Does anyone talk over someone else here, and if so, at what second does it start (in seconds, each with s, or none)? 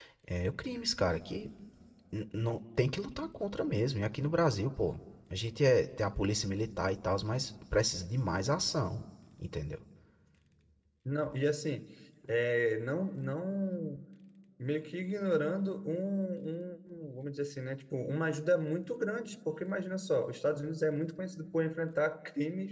none